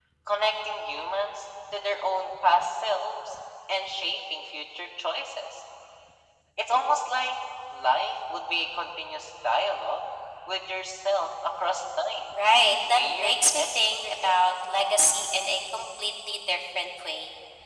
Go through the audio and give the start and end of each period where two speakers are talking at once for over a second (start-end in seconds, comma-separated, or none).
12.9-14.3